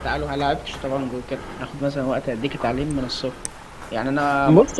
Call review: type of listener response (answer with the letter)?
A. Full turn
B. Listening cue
B